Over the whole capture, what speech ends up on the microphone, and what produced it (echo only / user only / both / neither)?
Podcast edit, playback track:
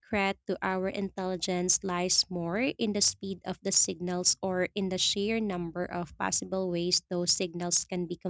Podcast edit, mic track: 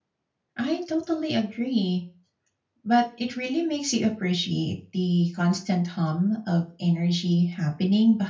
user only